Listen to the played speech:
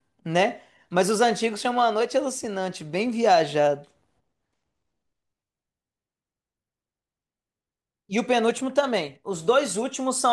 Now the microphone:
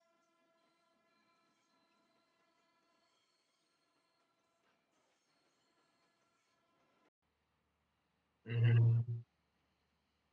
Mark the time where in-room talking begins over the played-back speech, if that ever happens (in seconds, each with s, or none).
8.4 s